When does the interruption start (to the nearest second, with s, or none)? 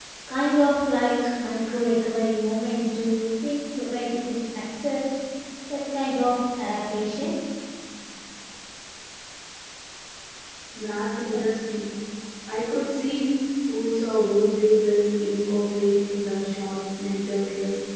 none